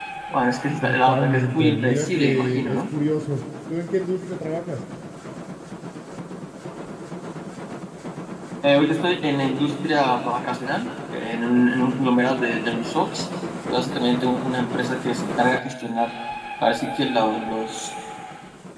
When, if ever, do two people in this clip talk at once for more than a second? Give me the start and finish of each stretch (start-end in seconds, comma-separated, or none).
0.8-2.8